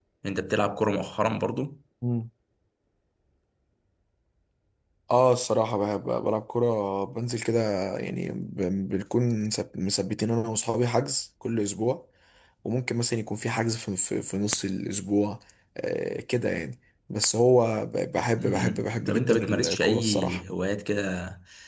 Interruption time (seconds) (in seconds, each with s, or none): 18.4 s